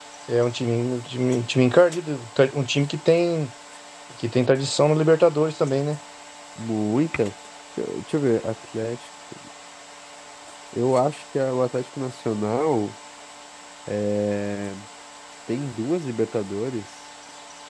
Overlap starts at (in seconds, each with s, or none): none